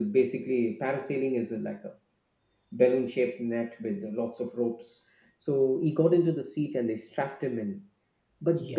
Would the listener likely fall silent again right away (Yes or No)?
Yes